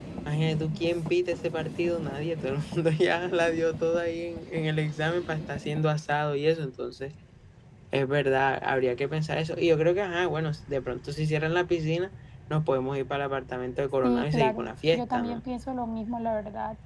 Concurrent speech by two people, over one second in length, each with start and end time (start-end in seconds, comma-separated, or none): 14.0-15.4